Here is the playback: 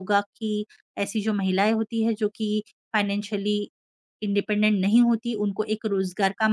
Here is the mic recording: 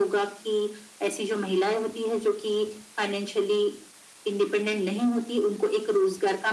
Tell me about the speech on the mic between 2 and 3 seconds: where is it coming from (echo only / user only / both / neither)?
echo only